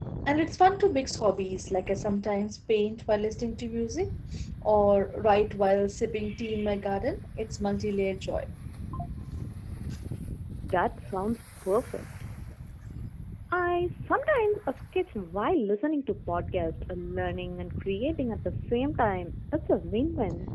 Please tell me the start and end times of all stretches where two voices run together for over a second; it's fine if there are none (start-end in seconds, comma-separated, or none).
none